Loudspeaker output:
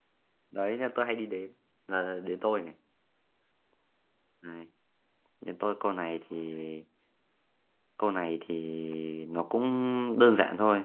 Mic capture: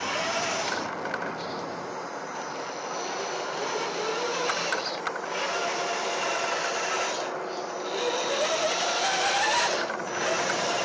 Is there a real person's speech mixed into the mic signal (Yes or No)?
No